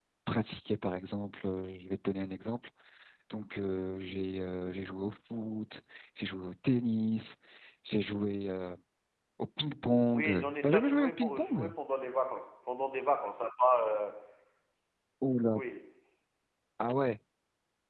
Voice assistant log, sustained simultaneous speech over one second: present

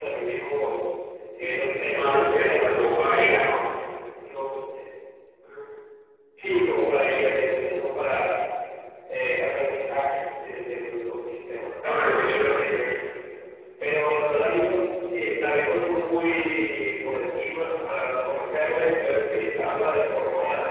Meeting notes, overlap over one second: present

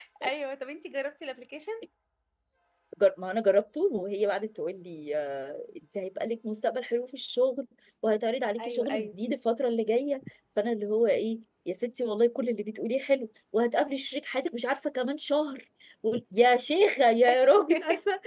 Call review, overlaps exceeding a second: none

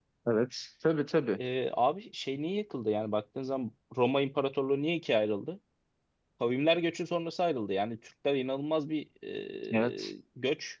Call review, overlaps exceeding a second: none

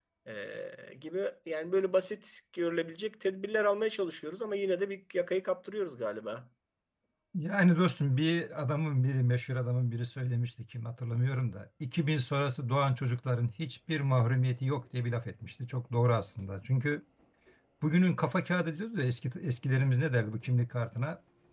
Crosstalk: none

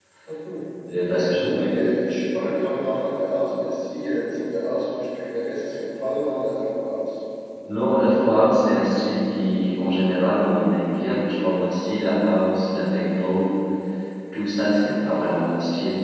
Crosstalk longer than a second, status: none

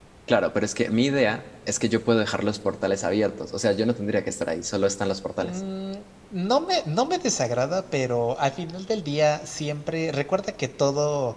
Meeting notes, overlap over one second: none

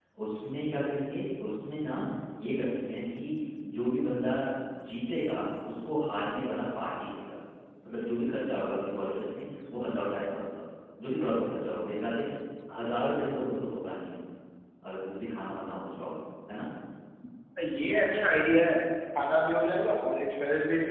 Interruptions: none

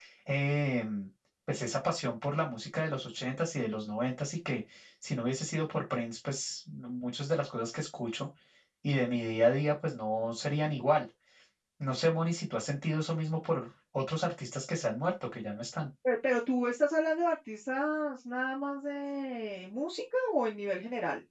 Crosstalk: none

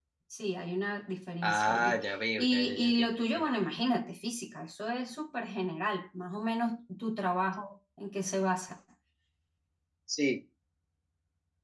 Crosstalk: present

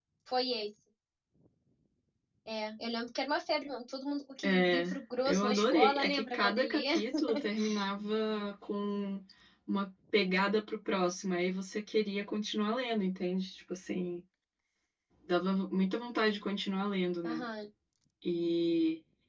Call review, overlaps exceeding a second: present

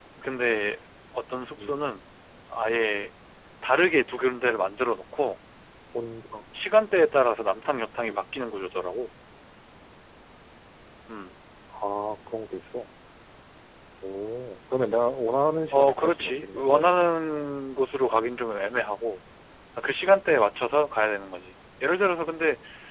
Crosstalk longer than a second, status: present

